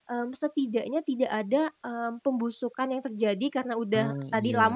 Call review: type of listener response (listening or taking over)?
listening